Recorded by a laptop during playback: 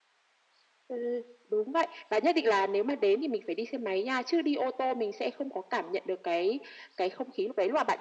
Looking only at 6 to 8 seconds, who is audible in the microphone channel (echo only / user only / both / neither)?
echo only